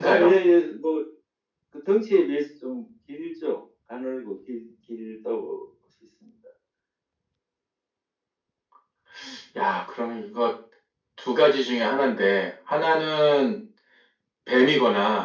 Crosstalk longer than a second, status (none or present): none